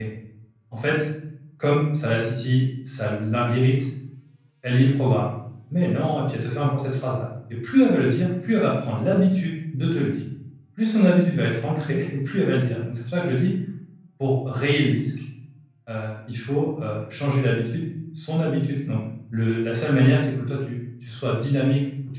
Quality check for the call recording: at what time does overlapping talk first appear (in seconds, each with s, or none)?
none